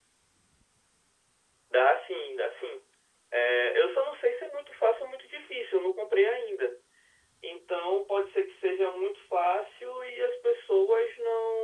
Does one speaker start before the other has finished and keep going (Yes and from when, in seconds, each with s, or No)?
No